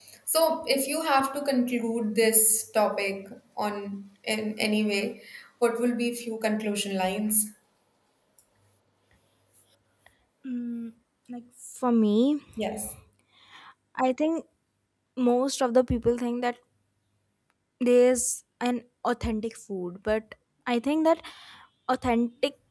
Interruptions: none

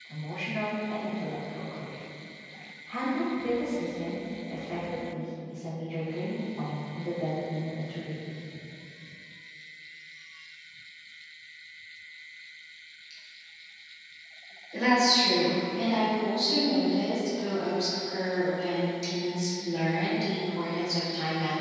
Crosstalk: none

